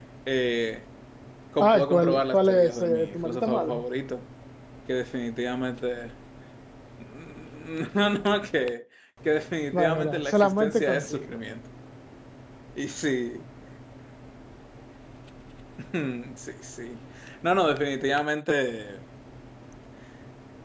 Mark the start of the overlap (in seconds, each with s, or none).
1.6 s